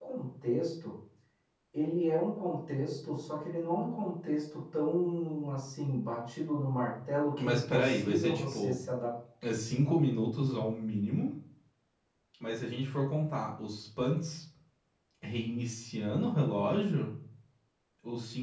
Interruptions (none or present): present